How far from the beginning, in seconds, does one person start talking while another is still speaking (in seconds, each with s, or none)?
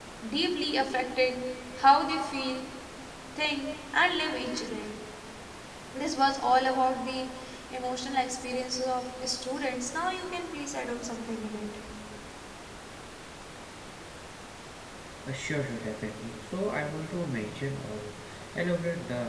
none